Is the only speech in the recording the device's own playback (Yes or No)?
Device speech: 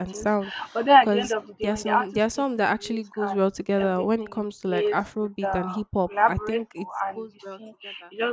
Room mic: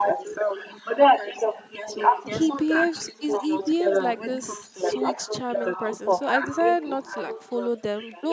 No